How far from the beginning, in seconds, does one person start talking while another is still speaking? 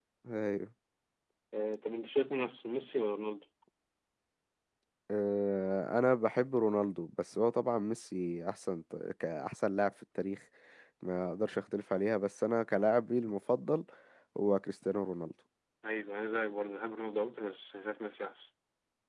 none

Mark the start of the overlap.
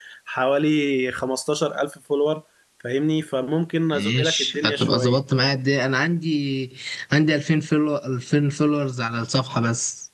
4 s

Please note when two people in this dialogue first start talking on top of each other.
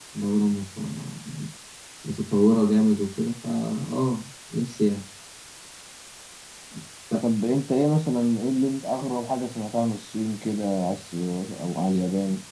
none

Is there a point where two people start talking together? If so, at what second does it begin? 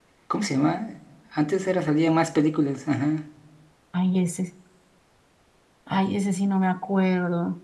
none

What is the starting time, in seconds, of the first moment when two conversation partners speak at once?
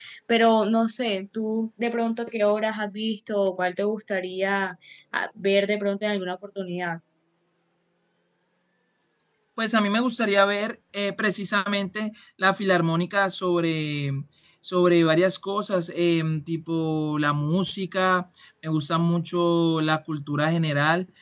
none

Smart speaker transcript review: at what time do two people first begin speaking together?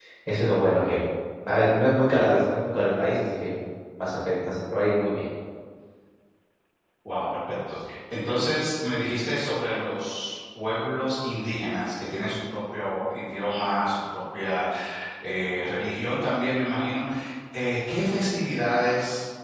none

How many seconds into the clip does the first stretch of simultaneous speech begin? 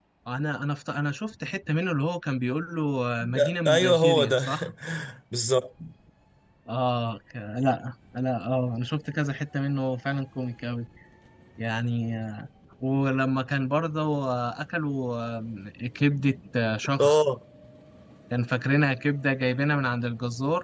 3 s

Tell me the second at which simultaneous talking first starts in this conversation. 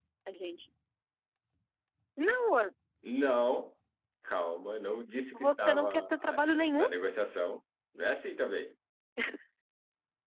5 s

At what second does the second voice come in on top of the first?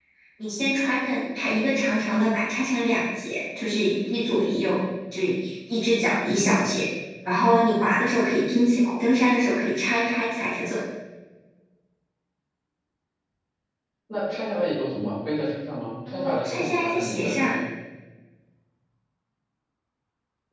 16 s

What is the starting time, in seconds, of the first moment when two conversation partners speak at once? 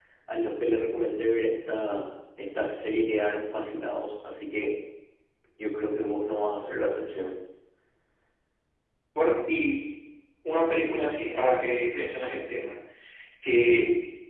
none

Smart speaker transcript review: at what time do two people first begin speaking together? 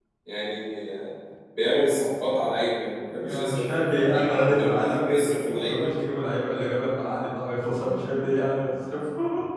3 s

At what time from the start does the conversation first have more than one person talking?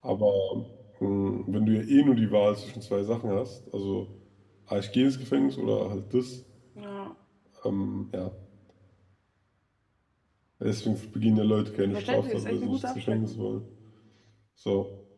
12 s

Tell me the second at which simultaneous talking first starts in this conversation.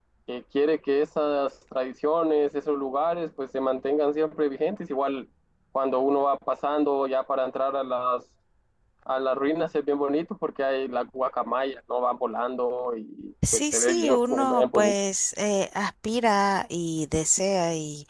13 s

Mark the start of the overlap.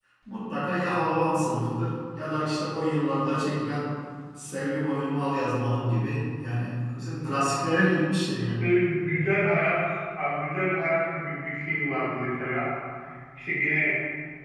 none

